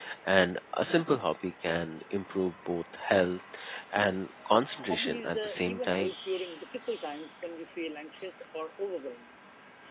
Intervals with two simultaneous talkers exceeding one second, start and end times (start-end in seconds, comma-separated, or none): 4.8-6.1